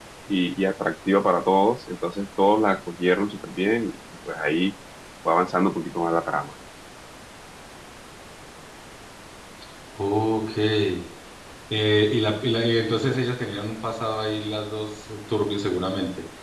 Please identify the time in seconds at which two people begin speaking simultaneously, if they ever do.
none

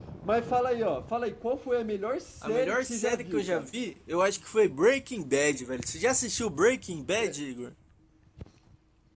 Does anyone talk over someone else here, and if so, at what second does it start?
2.4 s

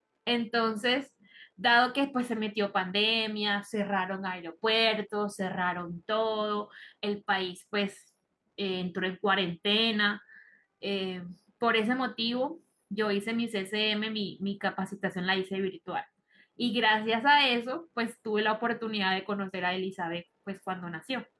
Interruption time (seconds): none

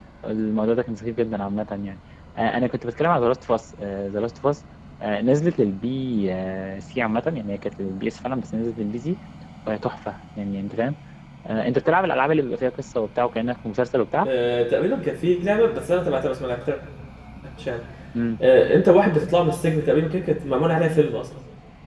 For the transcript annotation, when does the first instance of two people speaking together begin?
none

